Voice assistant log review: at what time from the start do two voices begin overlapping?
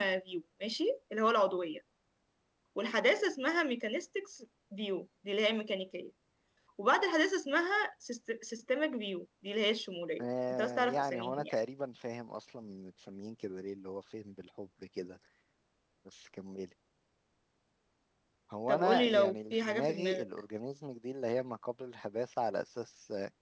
10.2 s

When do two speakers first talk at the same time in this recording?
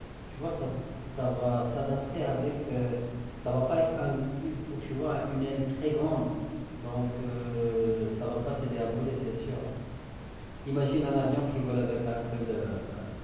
none

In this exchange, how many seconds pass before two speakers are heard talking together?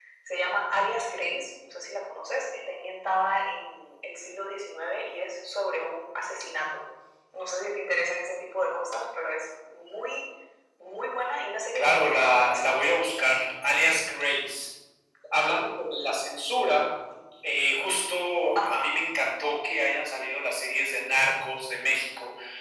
11.7 s

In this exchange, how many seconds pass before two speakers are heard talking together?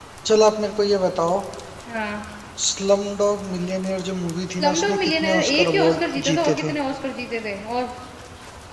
4.6 s

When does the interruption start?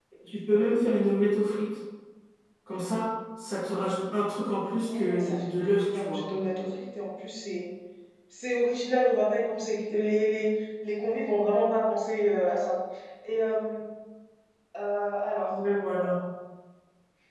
4.6 s

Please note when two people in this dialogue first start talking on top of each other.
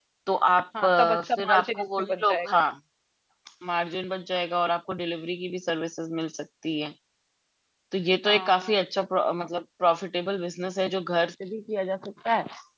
0.8 s

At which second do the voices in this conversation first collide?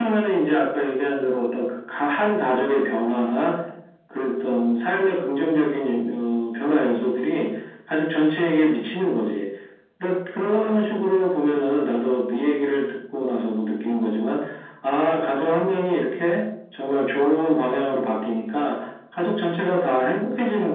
none

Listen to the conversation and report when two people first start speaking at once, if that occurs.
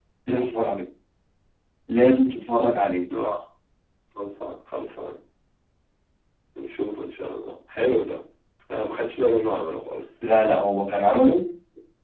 none

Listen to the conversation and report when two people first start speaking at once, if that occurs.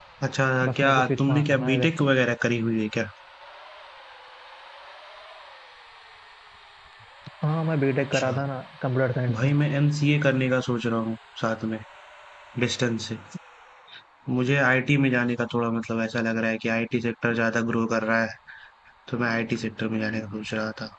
0.8 s

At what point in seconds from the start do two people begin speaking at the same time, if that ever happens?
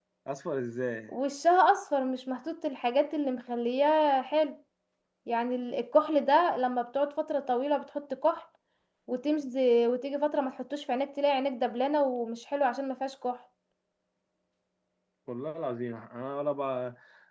none

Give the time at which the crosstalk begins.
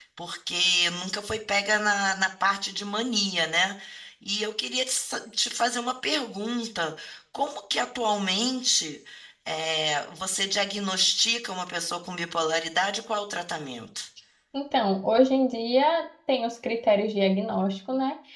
none

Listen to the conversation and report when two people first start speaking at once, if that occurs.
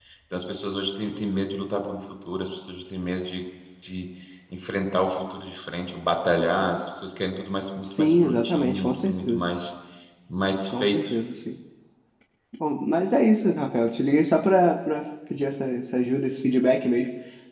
7.8 s

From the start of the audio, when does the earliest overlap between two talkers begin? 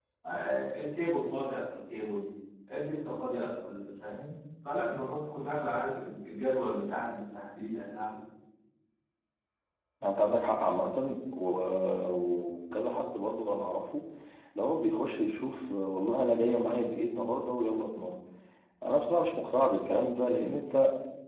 none

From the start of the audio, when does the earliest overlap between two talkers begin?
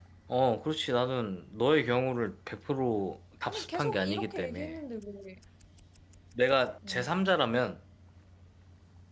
3.5 s

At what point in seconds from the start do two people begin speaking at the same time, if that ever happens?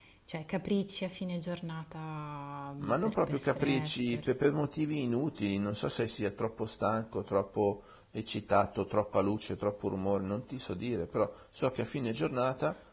2.8 s

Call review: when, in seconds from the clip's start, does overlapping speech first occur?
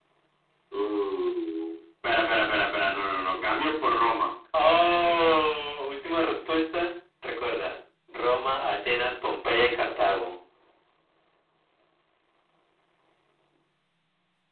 none

